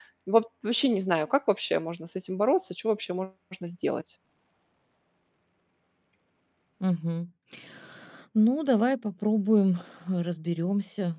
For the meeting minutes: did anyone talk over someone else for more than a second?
No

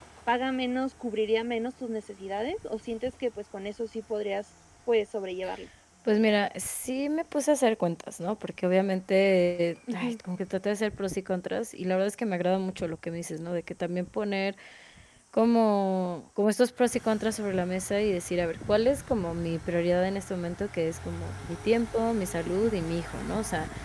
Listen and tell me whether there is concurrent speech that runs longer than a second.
No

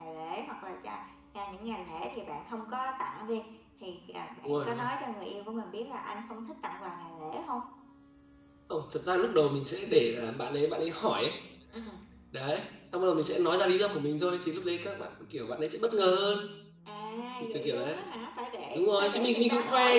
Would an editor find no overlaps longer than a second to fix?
No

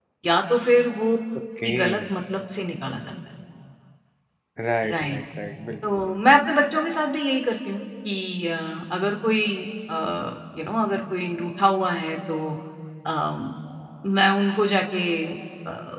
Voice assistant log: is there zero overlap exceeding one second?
Yes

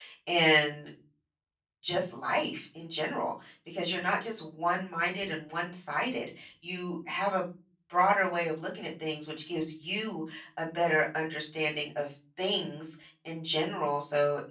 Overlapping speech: No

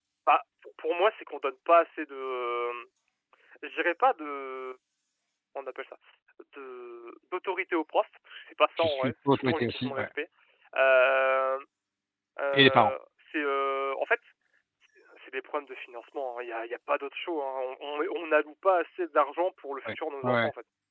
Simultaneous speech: Yes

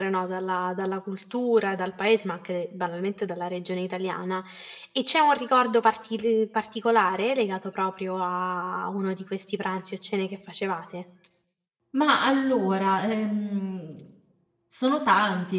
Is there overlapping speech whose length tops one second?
No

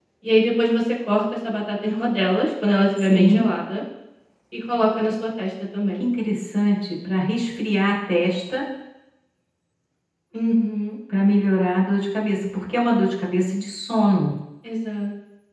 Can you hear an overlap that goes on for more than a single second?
No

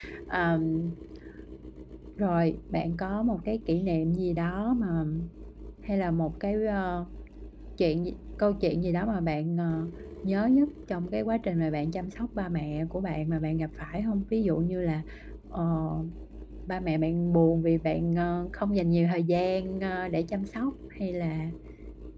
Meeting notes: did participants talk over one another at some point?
No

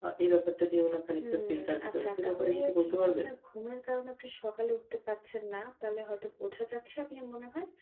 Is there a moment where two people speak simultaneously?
Yes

